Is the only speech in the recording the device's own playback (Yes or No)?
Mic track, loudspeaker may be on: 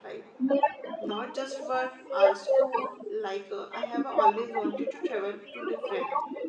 No